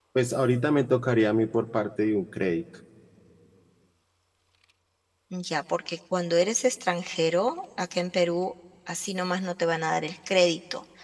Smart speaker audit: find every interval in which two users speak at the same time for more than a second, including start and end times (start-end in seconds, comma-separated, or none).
none